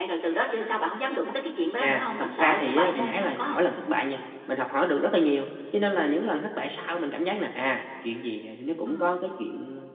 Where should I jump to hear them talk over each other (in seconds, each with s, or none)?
1.8 s